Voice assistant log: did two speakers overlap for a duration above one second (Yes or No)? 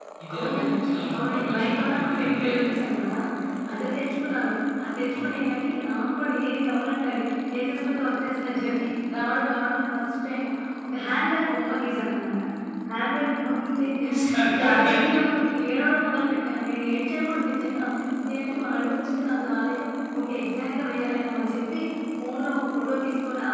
Yes